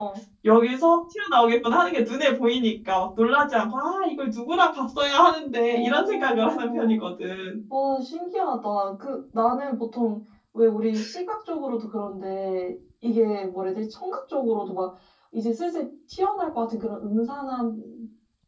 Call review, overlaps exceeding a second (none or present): present